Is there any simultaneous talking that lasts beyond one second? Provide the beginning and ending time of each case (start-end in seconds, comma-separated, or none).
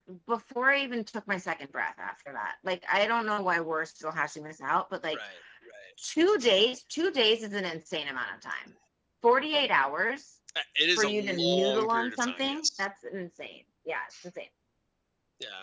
11.0-12.8